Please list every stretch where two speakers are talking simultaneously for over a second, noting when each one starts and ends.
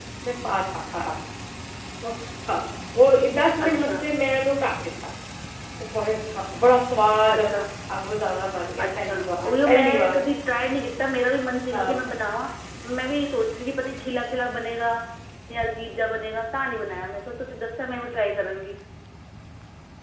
8.8-10.2

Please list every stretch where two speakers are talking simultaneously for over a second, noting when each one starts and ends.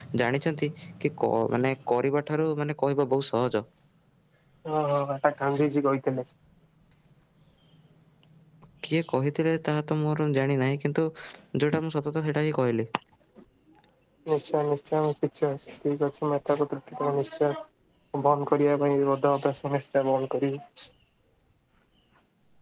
none

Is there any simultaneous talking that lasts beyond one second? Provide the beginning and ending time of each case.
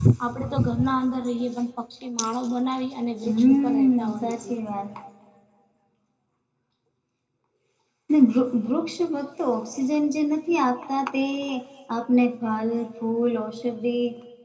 3.3-4.5

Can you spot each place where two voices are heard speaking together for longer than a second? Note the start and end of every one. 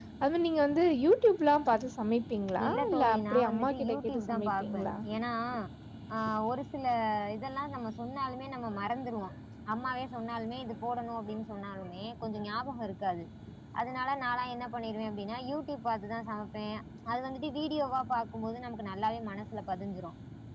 2.7-4.9

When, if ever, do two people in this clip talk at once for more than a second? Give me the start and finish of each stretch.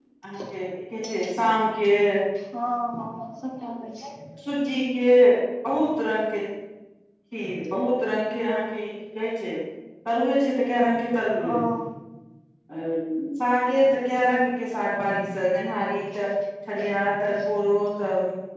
none

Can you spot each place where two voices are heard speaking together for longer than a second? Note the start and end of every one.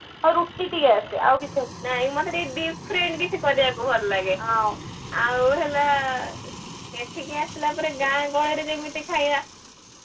none

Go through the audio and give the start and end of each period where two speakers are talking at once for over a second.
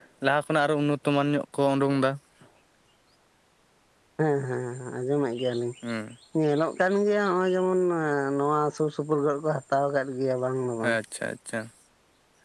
none

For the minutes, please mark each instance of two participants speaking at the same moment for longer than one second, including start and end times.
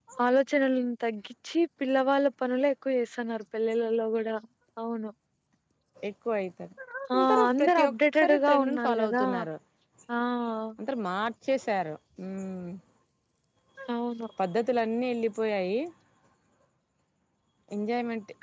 7.2-9.2

